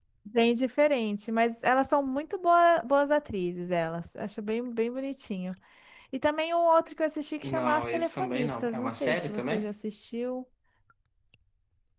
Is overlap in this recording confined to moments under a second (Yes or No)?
No